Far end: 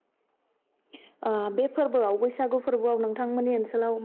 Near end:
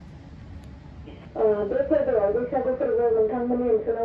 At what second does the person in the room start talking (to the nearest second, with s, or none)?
none